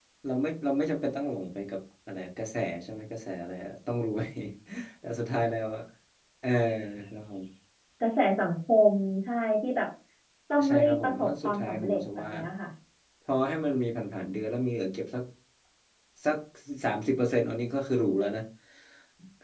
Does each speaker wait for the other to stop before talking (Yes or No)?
No